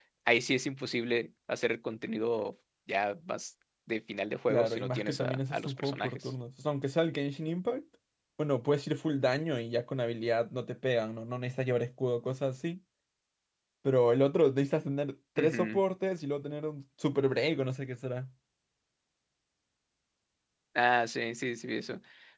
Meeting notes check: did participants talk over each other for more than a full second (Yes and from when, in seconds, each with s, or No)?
Yes, from 4.5 s